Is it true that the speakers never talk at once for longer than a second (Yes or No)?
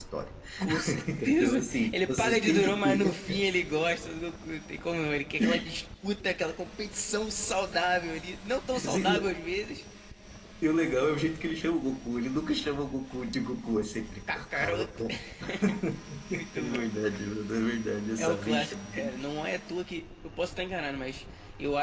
No